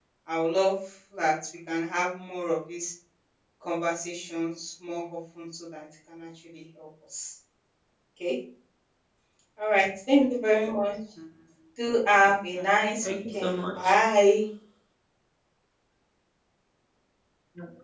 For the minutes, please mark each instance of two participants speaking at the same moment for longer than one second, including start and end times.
12.5-13.9

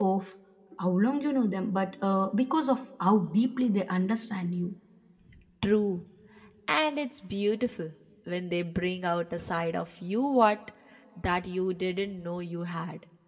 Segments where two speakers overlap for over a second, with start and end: none

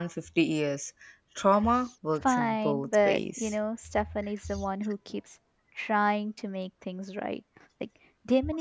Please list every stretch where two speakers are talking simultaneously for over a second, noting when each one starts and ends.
2.2-3.5

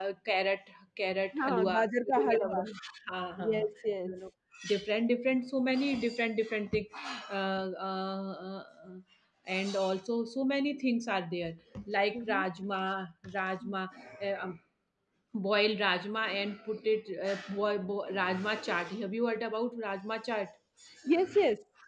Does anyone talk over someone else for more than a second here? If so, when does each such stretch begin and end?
1.4-2.6

